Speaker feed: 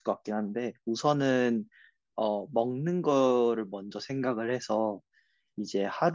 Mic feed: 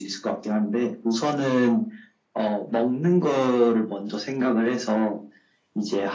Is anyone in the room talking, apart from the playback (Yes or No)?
No